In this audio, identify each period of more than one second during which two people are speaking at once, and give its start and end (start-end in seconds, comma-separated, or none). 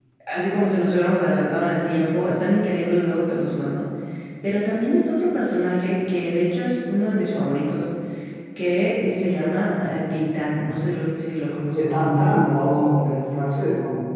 none